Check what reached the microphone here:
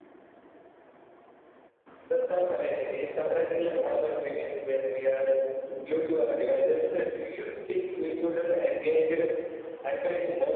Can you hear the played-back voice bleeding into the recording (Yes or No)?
Yes